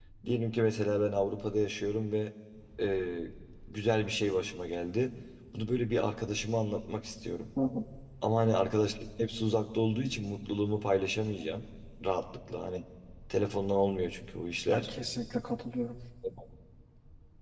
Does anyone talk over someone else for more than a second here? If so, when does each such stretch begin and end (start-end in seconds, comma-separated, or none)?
none